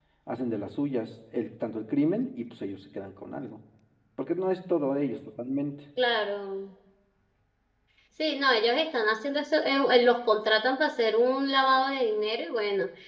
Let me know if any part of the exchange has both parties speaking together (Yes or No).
No